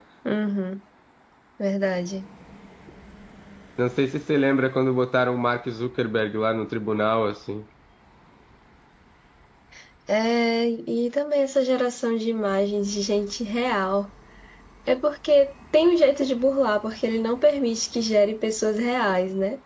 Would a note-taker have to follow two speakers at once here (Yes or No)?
No